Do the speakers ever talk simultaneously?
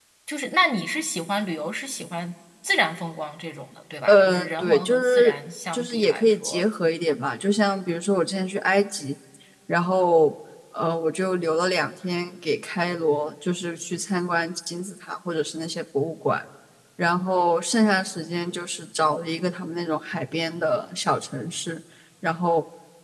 Yes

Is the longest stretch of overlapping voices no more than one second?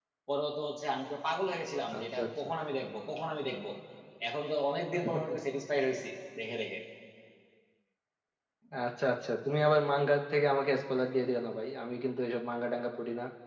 Yes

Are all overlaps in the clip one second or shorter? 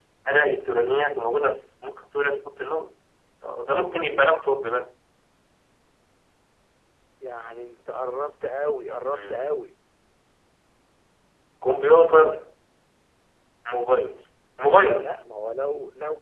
Yes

